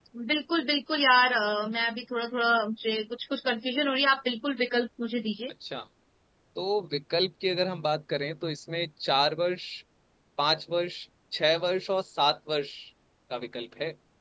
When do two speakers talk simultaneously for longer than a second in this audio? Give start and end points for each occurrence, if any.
none

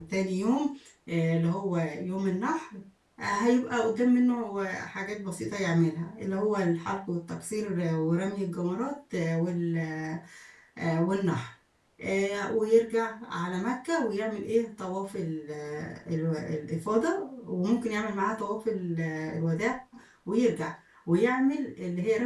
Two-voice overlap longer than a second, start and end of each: none

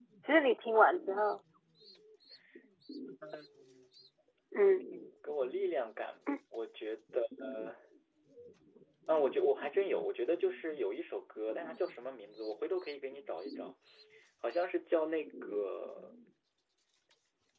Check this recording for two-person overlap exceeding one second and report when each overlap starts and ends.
none

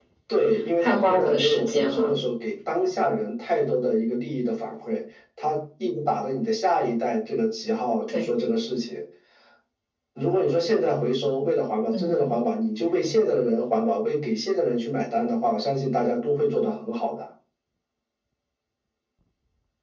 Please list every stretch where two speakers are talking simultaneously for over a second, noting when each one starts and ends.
0.8-2.1

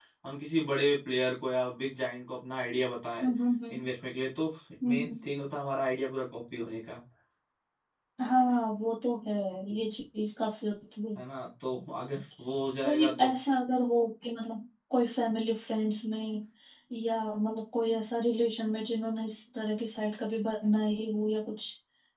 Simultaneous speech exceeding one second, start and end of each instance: none

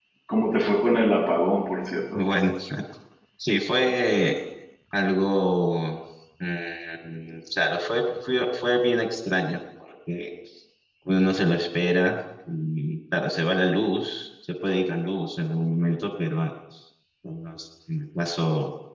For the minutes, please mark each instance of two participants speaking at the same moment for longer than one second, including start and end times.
none

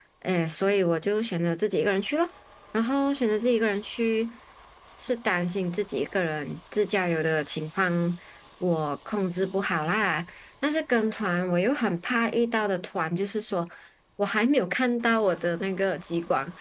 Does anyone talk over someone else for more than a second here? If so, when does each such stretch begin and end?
none

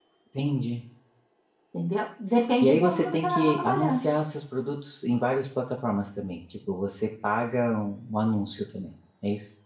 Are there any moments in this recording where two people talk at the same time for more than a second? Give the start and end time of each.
2.6-4.0

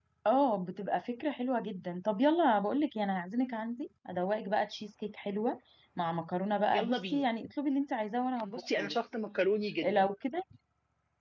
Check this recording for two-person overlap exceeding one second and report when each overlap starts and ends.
none

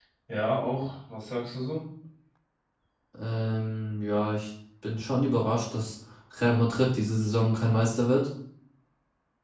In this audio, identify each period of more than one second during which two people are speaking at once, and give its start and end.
none

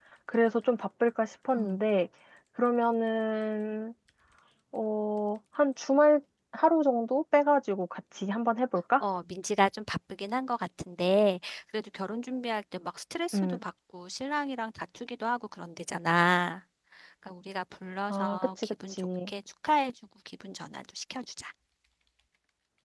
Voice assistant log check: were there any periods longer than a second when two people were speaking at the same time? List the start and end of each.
18.1-19.3

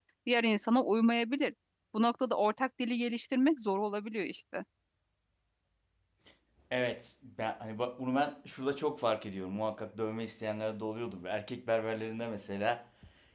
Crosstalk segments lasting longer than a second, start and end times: none

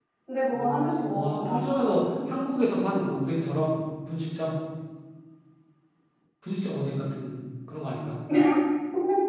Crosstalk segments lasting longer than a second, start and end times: 0.5-2.0

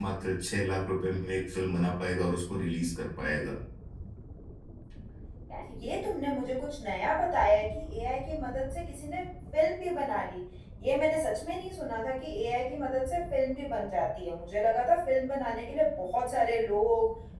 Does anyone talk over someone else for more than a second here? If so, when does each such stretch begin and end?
none

